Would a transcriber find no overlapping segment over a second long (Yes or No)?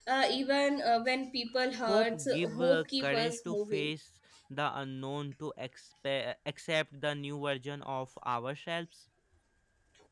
No